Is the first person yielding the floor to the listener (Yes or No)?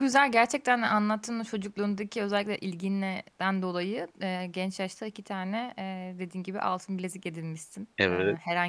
No